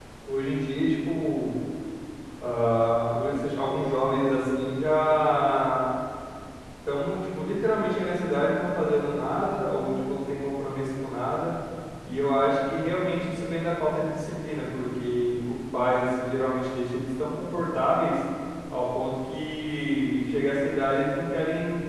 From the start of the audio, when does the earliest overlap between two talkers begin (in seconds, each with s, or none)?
none